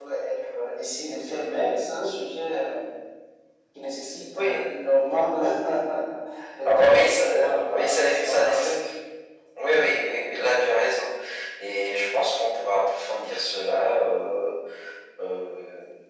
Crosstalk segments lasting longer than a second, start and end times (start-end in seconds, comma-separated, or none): 6.6-8.8